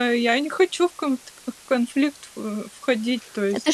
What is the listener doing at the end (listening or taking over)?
taking over